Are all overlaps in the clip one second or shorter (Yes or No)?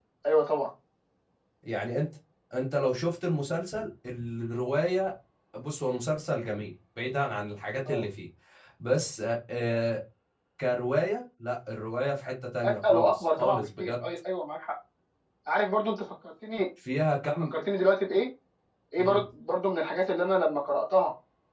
No